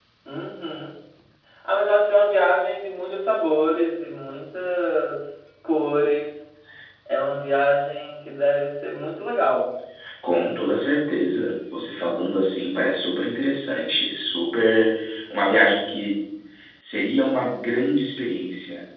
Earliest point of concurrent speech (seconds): none

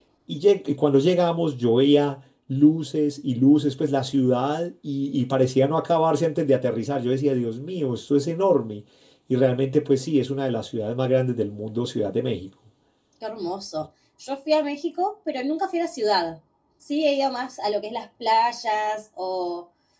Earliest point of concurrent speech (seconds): none

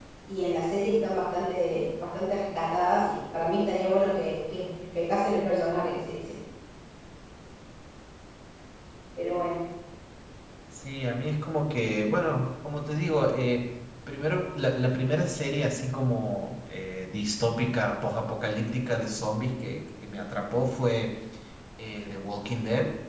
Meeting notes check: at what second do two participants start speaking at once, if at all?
none

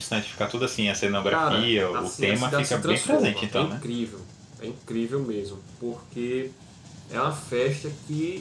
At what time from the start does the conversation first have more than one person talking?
1.3 s

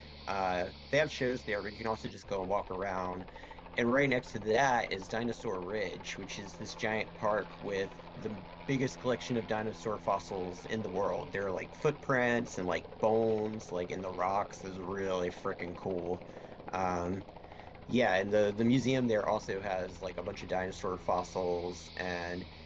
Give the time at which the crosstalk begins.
none

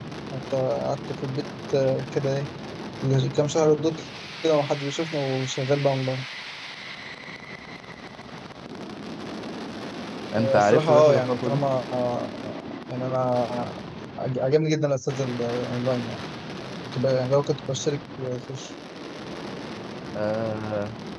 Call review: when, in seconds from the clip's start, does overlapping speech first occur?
10.4 s

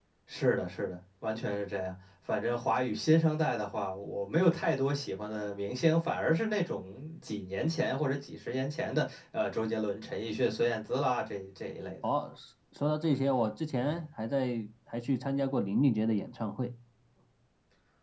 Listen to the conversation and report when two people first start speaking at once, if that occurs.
none

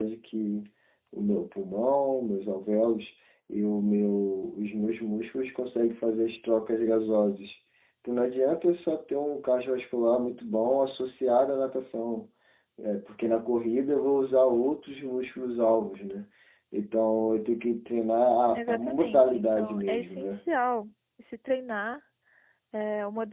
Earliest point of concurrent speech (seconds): 18.7 s

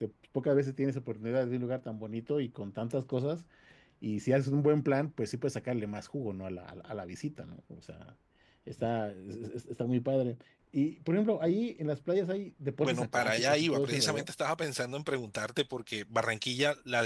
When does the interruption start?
12.8 s

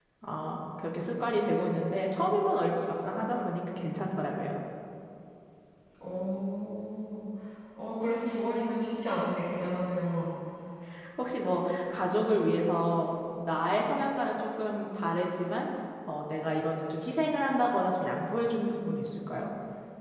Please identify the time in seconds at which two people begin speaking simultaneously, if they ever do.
none

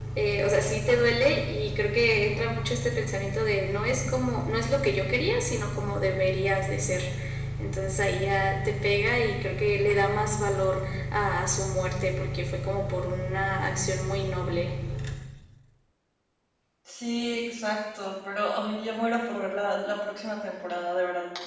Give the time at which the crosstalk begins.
none

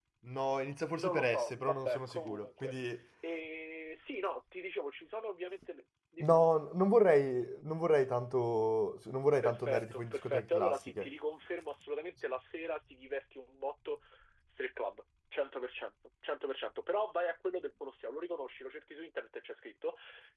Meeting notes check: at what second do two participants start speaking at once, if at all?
0.9 s

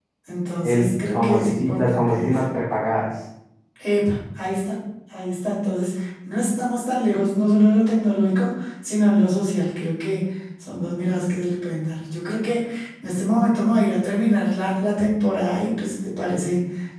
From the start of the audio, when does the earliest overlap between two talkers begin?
0.6 s

